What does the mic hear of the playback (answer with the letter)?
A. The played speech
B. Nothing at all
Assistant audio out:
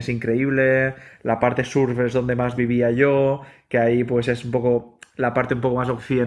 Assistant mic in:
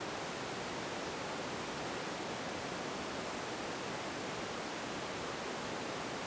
B